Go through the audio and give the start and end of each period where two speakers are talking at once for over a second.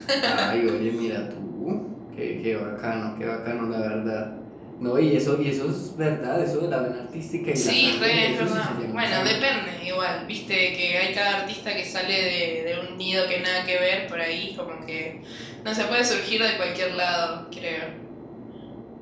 7.5-9.4

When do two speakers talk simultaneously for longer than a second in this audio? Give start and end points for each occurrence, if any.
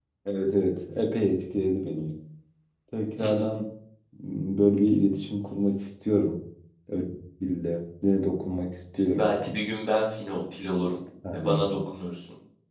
none

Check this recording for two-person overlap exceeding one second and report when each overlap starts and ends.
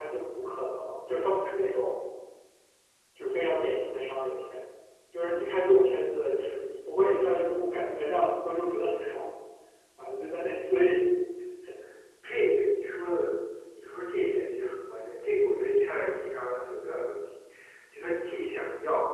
none

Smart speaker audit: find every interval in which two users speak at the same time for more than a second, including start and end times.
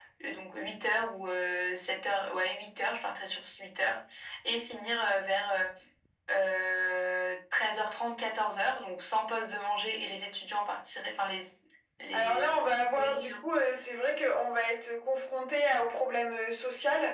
12.1-13.4

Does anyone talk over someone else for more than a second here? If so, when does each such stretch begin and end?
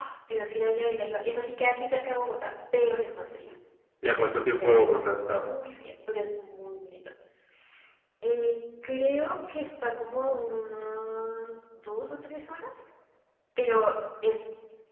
4.0-5.5

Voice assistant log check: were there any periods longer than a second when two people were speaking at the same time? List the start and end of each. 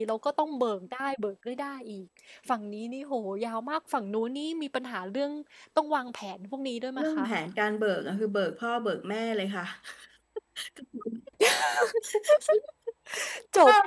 none

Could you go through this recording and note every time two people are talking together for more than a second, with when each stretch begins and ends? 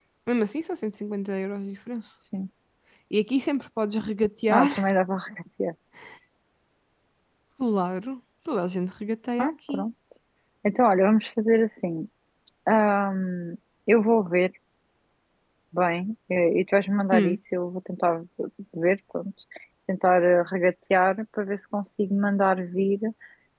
none

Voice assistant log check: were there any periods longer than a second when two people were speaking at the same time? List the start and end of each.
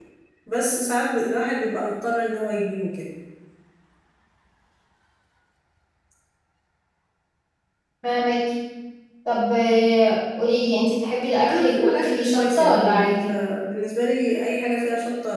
11.4-13.3

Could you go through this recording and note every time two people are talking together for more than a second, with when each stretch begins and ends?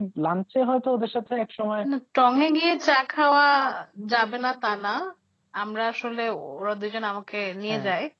none

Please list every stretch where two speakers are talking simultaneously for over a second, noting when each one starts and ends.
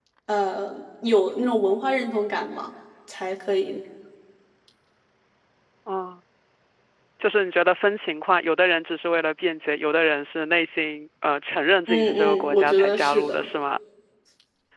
11.9-13.5

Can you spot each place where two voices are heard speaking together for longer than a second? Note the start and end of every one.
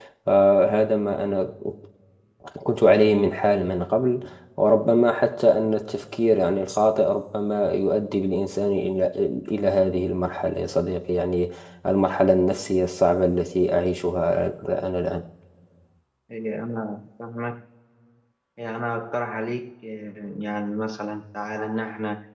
none

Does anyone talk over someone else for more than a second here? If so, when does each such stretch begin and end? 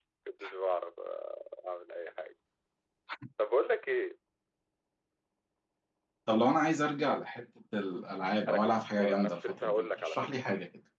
8.5-10.4

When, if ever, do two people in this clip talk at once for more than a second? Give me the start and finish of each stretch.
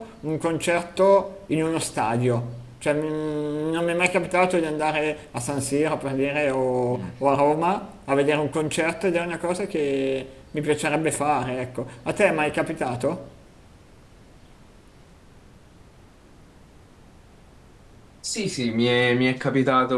none

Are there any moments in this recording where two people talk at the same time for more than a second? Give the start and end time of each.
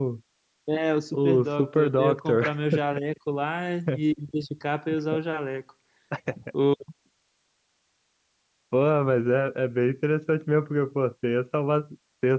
1.1-2.4

